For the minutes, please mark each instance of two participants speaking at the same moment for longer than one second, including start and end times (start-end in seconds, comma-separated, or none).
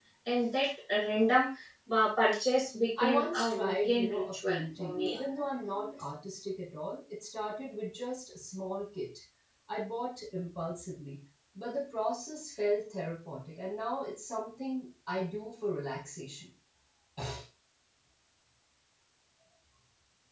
3.0-5.2